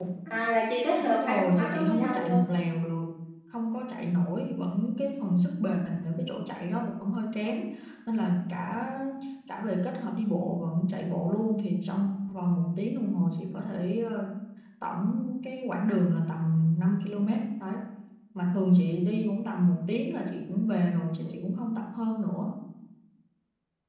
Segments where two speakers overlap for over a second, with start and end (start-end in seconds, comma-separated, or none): 1.0-2.4